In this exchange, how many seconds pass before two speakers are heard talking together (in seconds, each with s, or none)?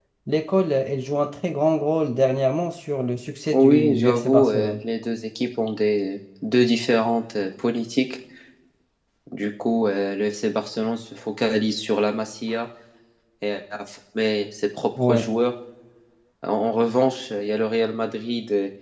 3.5 s